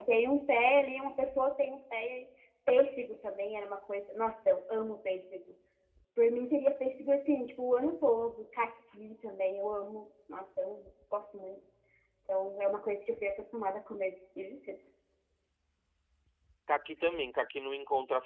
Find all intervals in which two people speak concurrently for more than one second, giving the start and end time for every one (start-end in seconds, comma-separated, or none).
none